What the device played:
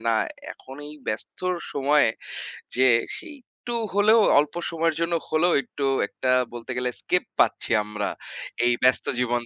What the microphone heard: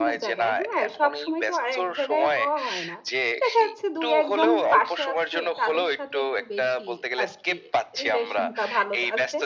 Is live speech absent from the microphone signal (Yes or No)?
No